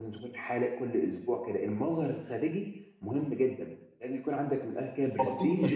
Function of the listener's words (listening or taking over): taking over